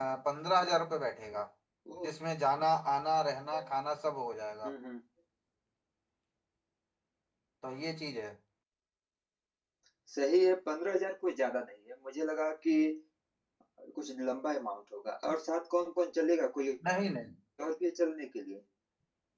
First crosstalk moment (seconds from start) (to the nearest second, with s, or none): none